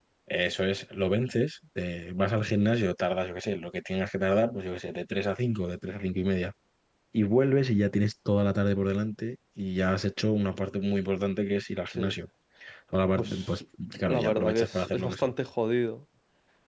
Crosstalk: present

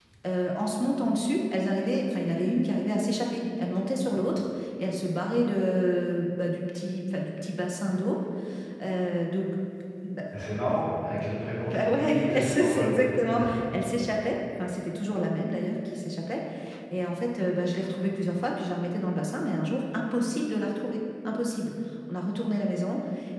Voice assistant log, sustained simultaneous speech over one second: present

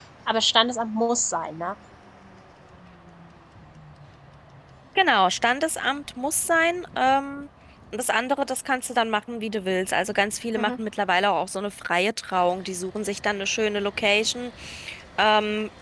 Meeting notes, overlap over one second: none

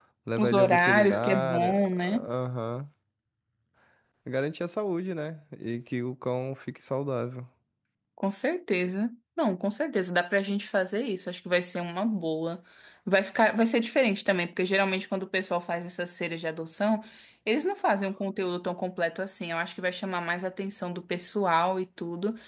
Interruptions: present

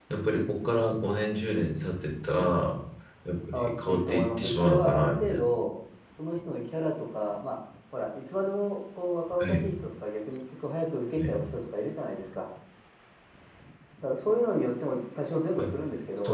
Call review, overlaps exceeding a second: present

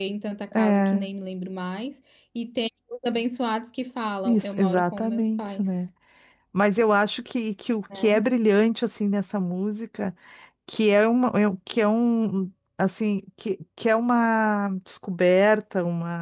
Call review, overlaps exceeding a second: present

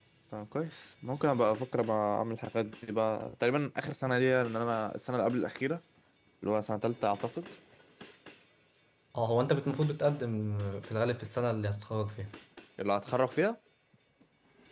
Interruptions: none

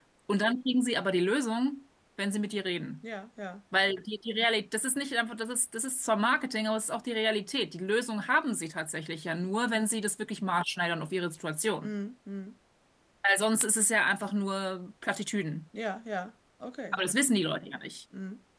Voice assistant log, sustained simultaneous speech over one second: none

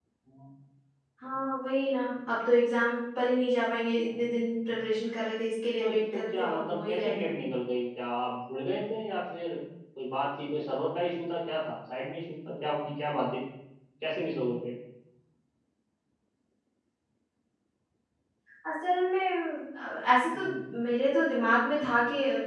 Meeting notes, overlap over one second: present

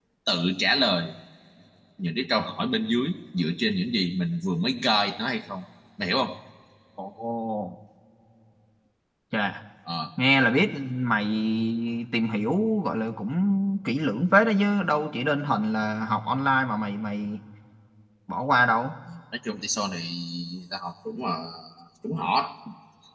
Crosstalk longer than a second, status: none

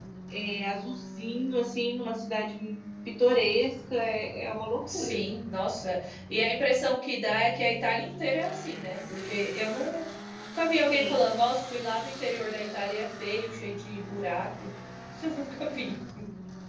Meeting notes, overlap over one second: none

